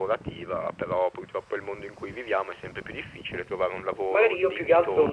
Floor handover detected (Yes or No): Yes